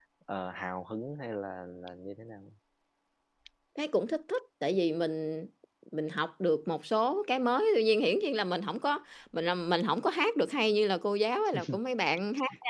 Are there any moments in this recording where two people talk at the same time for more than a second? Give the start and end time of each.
none

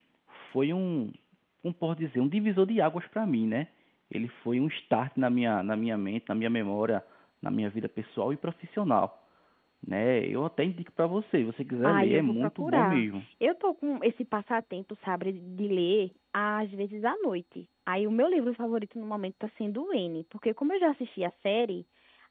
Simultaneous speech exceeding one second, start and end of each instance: 11.8-13.0

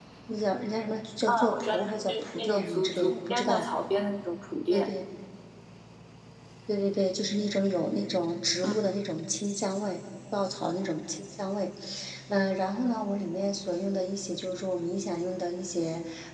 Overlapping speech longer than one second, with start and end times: 1.6-3.6

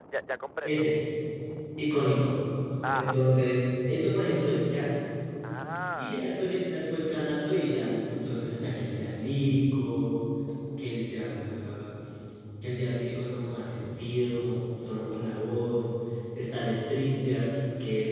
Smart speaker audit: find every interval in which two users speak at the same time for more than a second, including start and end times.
none

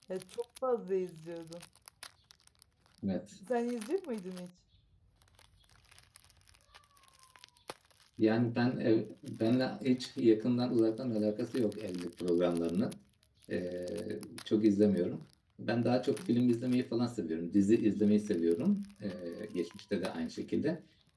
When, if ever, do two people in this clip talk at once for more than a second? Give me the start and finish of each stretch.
none

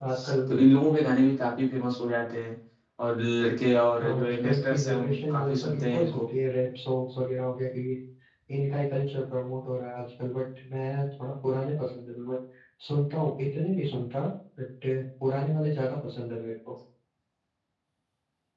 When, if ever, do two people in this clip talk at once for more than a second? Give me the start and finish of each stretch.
4.0-6.3

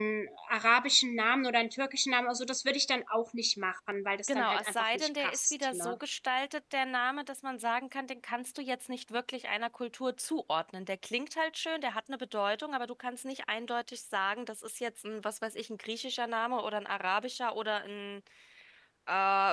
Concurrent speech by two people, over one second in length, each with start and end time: 4.3-5.9

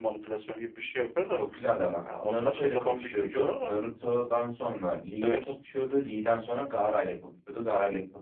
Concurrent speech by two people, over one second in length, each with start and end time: 2.2-3.7

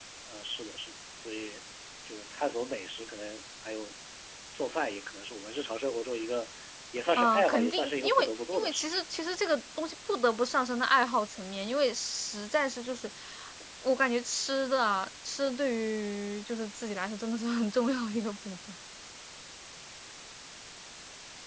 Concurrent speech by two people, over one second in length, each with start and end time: 7.2-9.0

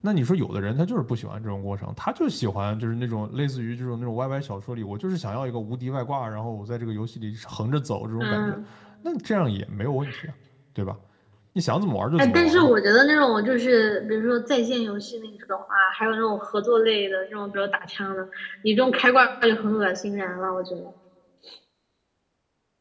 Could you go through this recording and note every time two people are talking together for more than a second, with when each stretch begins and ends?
none

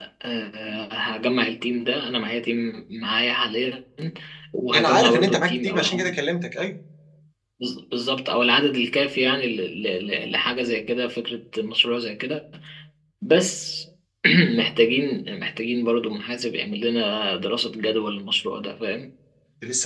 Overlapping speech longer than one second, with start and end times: 4.7-6.2

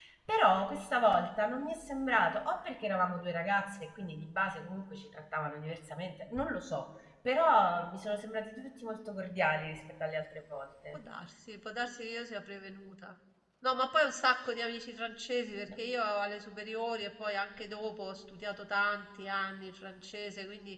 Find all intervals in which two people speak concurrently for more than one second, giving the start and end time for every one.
none

